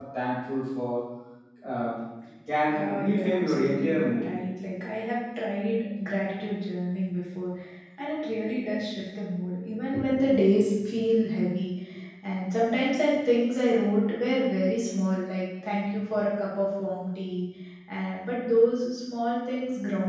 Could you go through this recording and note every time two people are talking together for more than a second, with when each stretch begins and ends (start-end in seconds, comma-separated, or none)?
2.7-4.3